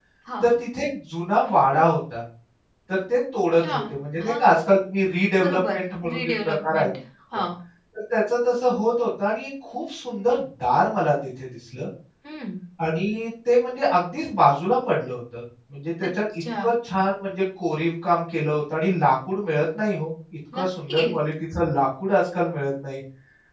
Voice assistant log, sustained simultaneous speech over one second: present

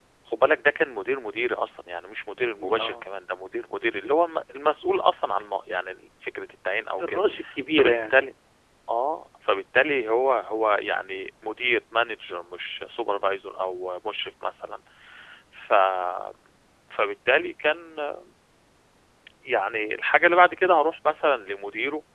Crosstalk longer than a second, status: none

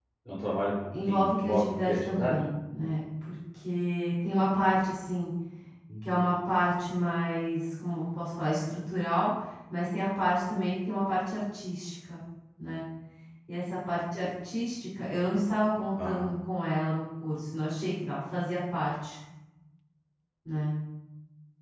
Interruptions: present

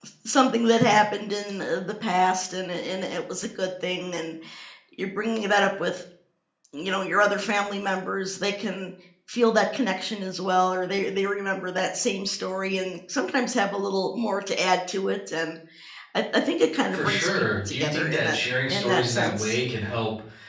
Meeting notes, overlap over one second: present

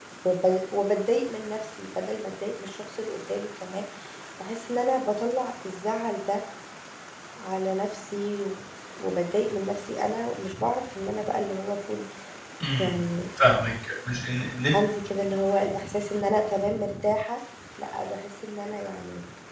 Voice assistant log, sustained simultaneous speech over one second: none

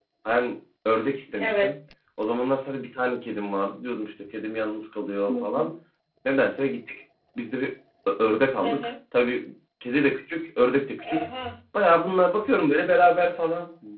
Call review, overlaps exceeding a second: none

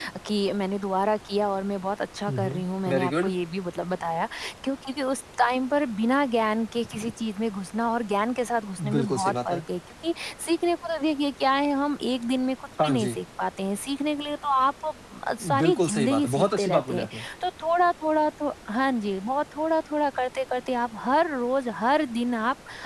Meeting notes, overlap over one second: present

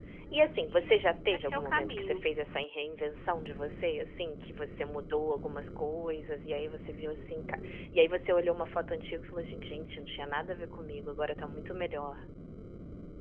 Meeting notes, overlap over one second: present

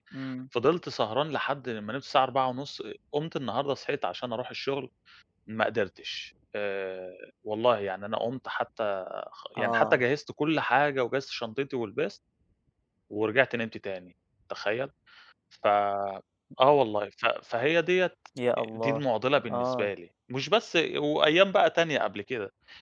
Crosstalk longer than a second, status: none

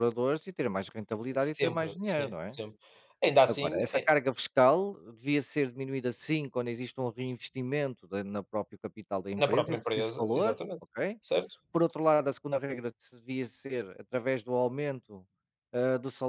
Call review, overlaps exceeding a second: present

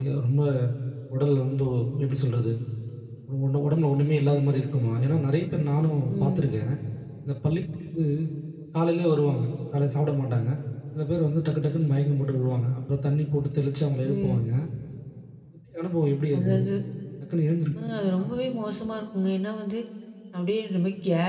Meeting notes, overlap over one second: none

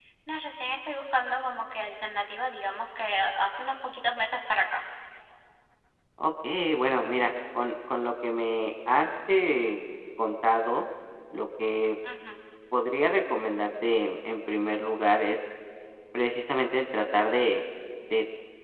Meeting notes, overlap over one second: none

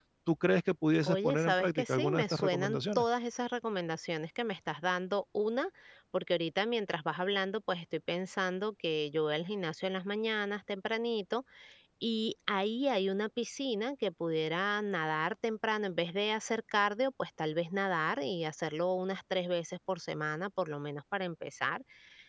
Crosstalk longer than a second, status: present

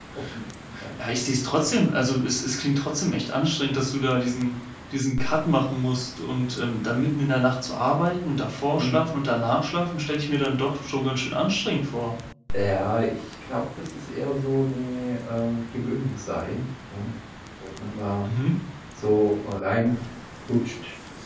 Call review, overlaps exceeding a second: none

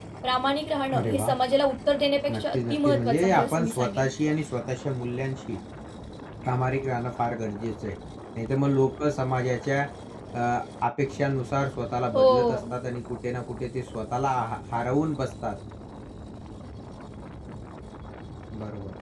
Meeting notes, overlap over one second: present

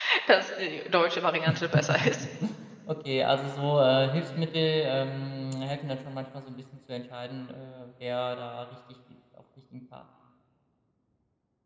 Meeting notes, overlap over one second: none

